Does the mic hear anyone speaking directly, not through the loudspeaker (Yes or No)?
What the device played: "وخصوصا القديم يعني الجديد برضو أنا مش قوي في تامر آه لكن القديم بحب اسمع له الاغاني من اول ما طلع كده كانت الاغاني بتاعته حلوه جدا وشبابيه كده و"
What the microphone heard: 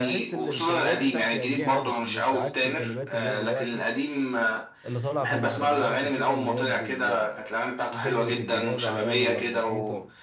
Yes